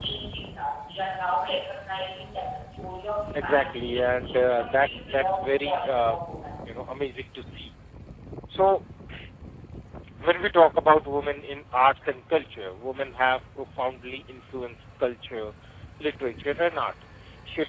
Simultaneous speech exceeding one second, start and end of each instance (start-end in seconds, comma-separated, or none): 3.3-6.2